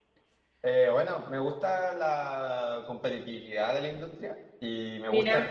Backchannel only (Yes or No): Yes